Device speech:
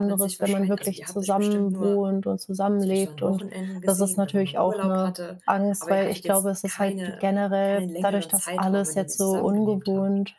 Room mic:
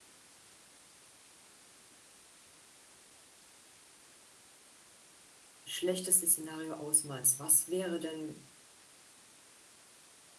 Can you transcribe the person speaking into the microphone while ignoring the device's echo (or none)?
schlechteste Szenario ausmalst, was wäre denn